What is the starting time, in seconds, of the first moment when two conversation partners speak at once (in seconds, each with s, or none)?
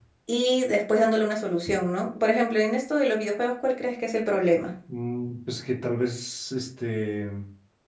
none